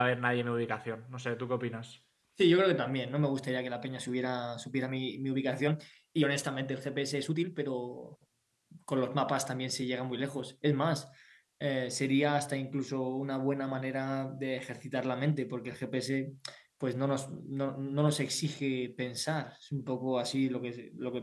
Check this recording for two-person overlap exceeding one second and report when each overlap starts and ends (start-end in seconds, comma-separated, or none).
none